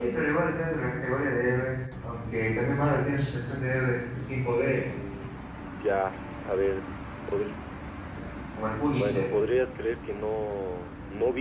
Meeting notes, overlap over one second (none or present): none